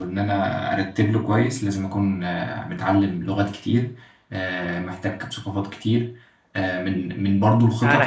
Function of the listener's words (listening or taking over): taking over